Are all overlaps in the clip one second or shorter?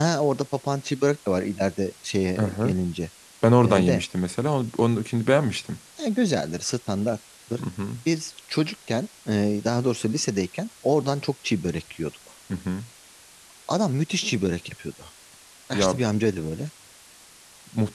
Yes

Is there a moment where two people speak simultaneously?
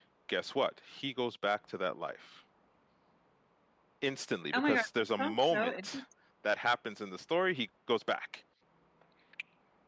Yes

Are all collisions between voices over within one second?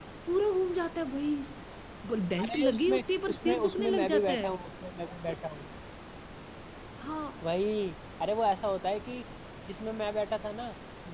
No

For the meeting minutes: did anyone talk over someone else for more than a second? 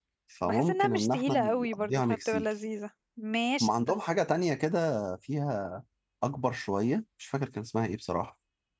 Yes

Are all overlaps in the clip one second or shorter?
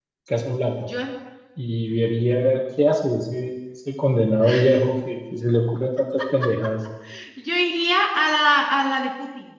Yes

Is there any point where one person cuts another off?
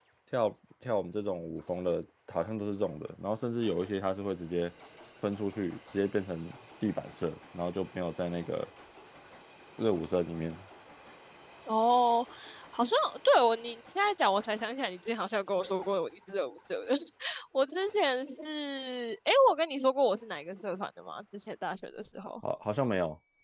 No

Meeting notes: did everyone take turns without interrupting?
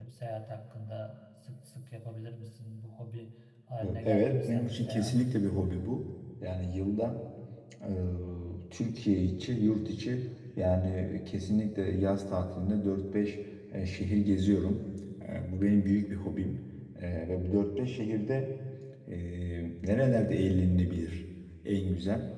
No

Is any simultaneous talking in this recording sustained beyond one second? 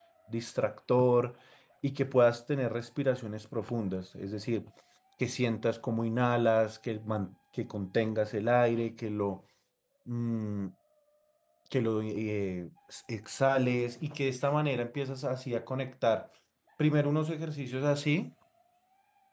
No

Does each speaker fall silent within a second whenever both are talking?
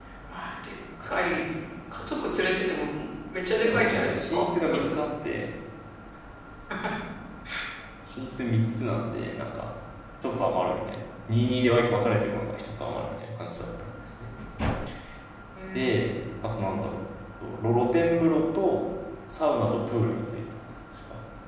No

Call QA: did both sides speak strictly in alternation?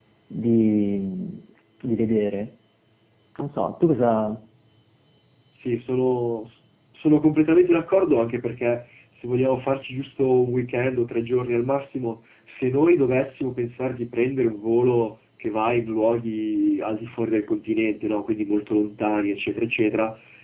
Yes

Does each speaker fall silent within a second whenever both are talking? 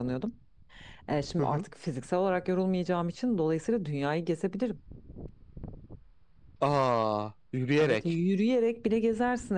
Yes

